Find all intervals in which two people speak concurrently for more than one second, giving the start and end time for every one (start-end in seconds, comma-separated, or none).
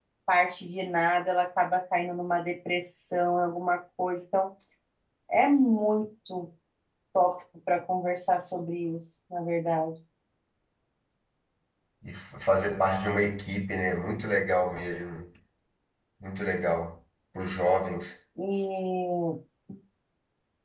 none